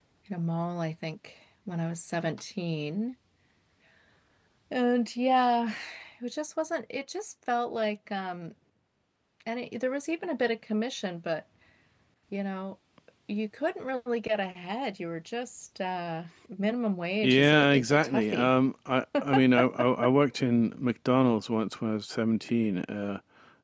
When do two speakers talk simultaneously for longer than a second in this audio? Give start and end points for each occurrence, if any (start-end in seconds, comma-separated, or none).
17.2-18.5